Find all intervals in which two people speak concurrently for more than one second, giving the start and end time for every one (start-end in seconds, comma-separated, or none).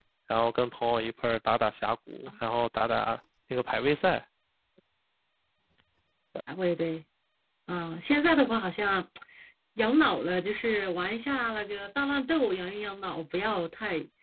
none